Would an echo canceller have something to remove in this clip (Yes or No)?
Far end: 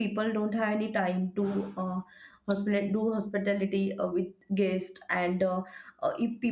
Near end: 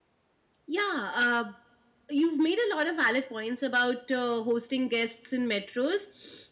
No